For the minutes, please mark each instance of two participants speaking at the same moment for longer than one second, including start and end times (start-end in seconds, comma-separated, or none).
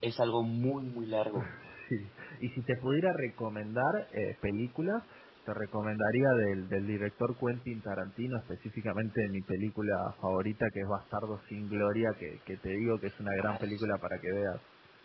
none